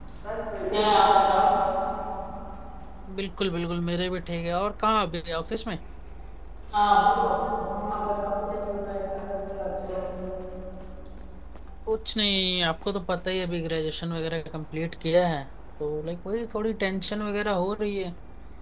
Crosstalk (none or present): none